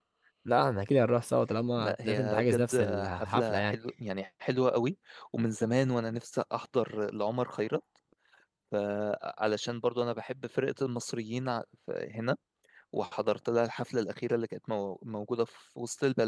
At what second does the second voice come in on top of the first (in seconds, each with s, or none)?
1.8 s